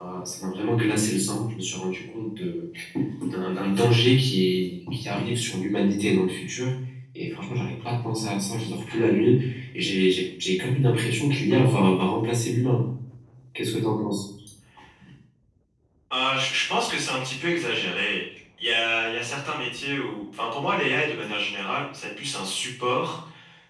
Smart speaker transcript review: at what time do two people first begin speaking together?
none

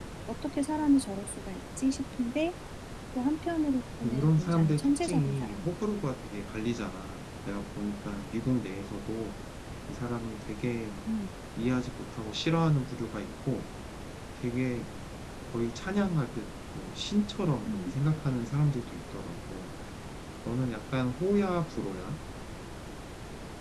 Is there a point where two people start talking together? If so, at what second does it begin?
4.0 s

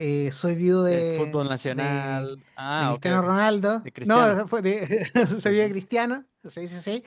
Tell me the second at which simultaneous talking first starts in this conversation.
0.9 s

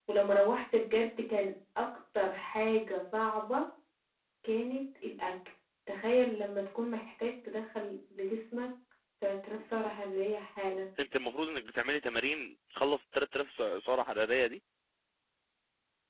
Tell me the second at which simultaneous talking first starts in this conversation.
none

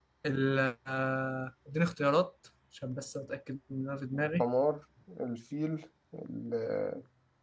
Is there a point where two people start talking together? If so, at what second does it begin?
none

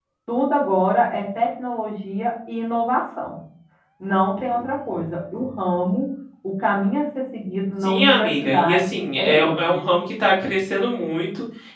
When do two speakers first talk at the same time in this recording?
7.8 s

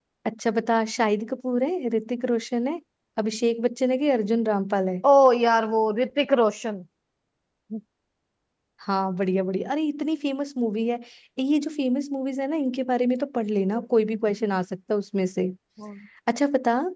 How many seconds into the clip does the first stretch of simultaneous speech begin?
none

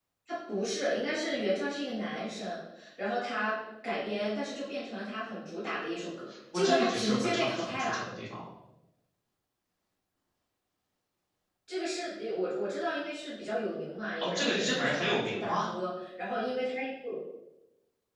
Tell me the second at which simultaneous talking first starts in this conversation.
6.5 s

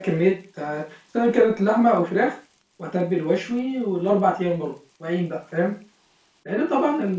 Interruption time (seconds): none

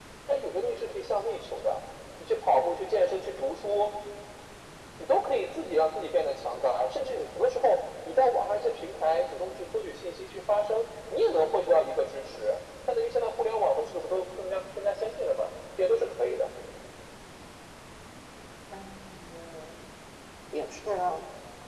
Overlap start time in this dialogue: none

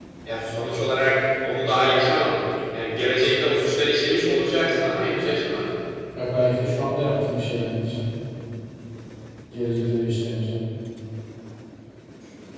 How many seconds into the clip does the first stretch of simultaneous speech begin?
none

